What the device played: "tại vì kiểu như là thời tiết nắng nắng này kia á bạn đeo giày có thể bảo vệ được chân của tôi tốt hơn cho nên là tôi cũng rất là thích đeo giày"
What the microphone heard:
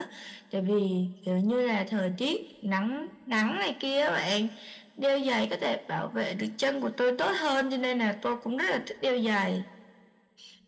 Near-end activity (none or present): none